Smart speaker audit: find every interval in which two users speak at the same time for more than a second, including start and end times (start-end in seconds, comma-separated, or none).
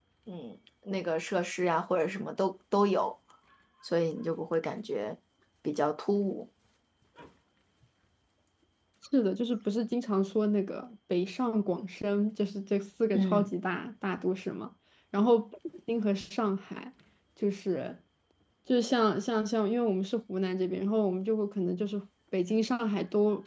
none